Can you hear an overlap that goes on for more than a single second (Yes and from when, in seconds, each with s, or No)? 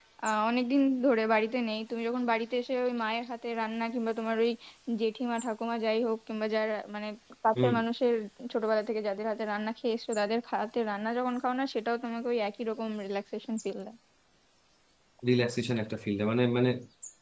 No